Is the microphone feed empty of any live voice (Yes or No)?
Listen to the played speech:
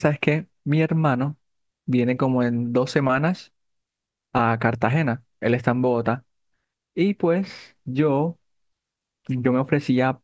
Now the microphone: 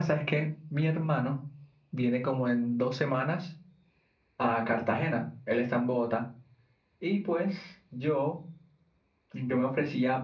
Yes